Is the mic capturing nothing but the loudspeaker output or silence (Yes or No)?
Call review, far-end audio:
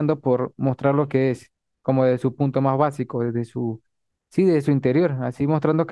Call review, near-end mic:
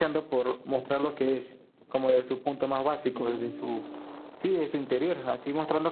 No